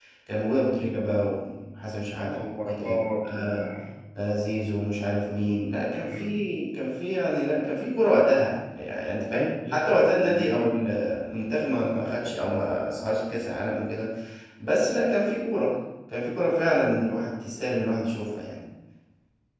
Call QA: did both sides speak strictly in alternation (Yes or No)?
No